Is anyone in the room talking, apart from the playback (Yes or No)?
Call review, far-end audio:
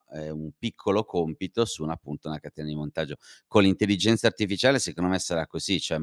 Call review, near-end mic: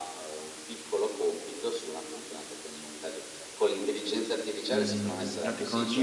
Yes